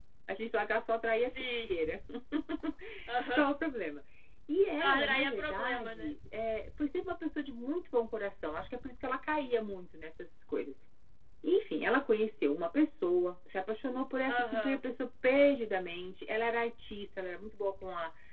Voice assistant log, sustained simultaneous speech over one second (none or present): present